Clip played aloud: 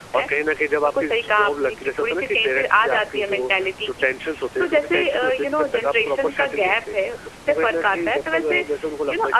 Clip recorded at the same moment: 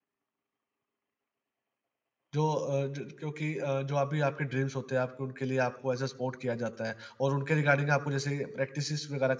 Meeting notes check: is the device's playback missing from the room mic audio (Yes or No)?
Yes